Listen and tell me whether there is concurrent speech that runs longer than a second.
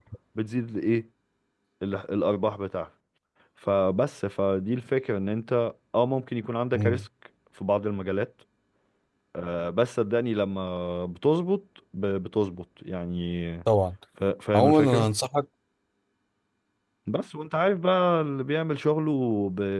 No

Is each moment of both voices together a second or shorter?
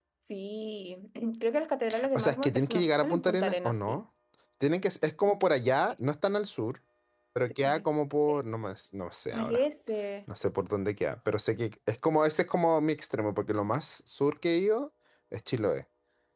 No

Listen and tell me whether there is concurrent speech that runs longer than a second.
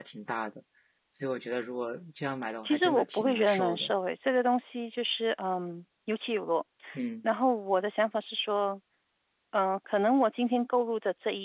Yes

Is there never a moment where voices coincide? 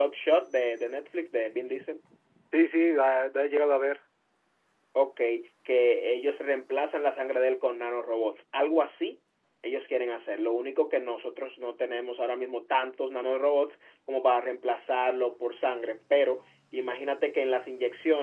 Yes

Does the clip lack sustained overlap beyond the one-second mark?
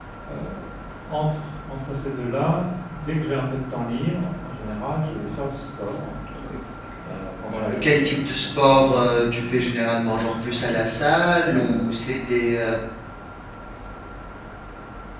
No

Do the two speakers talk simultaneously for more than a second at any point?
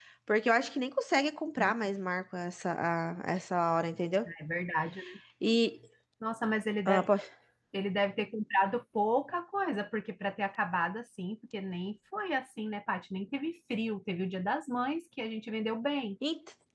No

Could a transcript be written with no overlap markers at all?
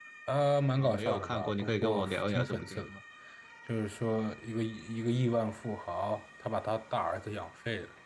No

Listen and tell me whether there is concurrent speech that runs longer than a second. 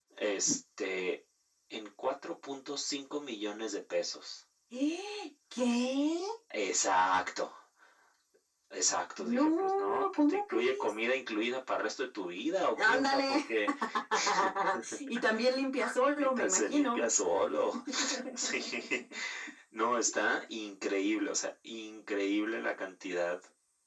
Yes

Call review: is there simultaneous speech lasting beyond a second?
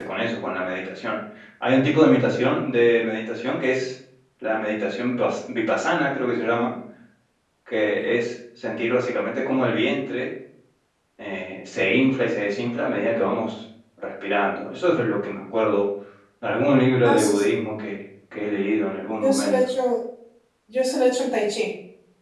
No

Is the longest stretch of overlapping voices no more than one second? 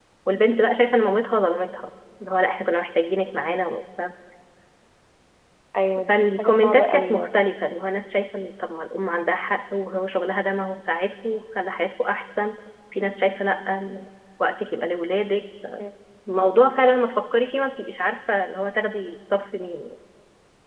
No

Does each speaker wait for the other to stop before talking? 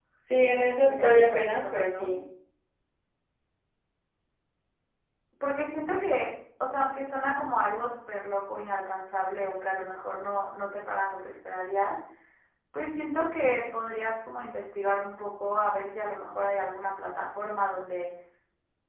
No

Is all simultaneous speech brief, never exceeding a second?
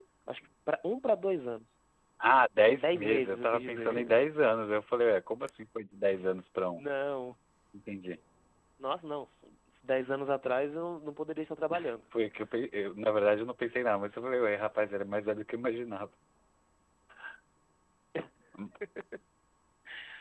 No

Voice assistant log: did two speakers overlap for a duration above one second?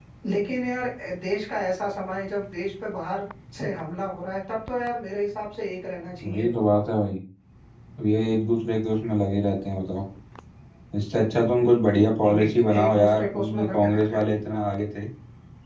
Yes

